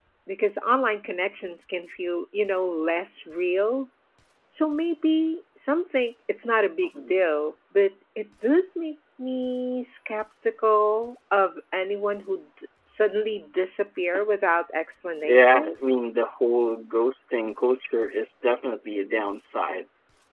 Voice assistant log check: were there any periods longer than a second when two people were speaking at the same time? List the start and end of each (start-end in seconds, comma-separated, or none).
none